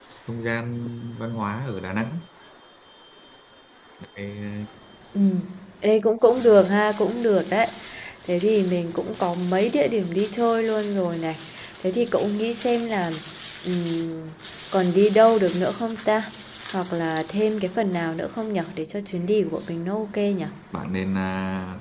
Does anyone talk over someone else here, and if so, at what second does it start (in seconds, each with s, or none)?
none